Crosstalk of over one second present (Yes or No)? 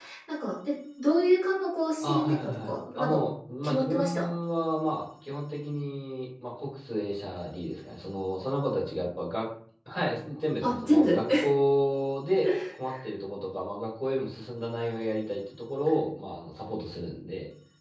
Yes